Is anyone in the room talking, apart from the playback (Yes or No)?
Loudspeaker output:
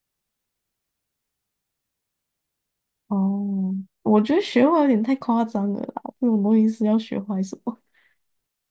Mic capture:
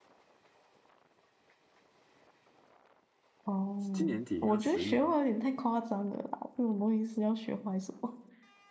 Yes